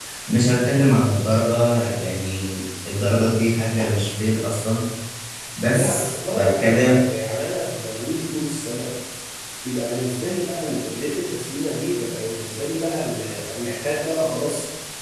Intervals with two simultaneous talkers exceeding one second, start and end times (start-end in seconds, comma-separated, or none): 5.7-7.0